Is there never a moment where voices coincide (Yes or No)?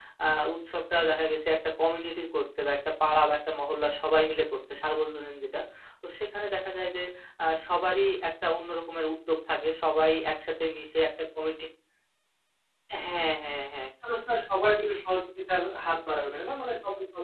Yes